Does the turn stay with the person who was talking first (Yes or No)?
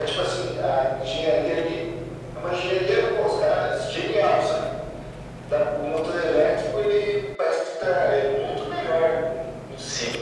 No